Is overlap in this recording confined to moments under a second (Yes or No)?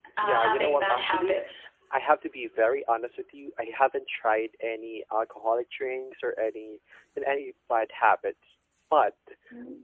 No